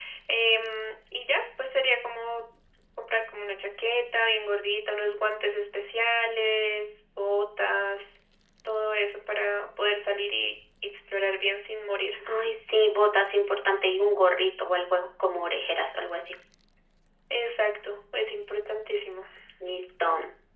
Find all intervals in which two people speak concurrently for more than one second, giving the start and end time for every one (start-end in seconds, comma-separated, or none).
none